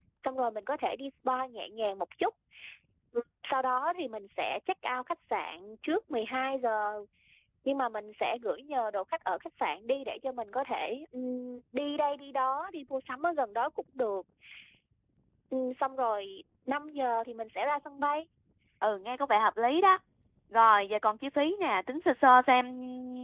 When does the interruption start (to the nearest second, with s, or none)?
none